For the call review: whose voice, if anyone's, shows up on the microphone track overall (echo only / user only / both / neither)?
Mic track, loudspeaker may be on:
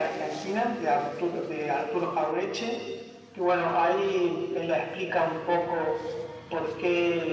echo only